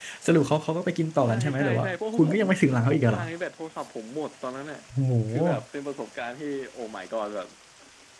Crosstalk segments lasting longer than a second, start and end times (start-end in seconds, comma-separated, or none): 1.3-3.2